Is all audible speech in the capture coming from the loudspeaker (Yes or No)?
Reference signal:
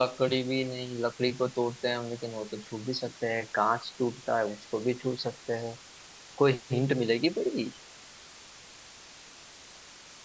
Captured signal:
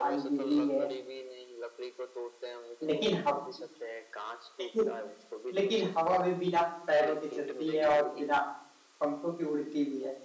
No